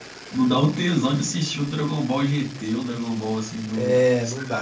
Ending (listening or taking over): taking over